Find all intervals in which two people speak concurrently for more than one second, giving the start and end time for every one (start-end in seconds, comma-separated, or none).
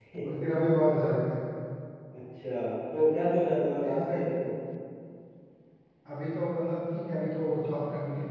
none